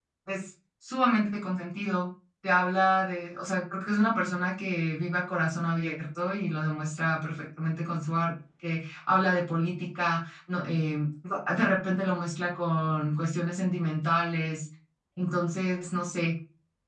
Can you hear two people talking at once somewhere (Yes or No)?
No